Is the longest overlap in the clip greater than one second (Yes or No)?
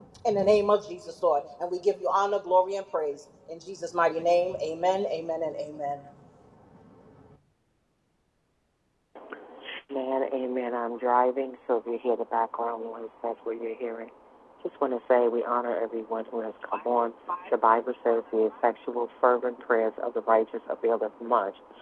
No